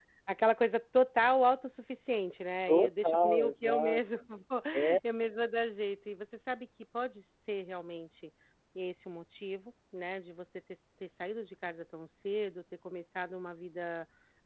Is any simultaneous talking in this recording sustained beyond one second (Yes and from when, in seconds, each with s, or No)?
Yes, from 2.7 s